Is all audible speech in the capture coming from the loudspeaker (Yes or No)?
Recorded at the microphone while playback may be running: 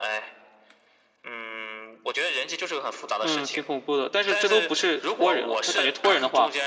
No